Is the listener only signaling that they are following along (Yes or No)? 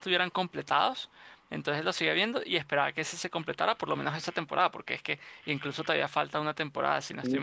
No